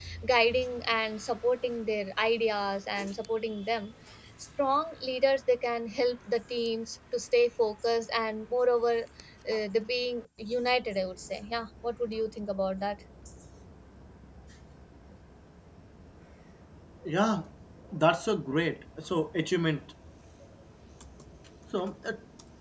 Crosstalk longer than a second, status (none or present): none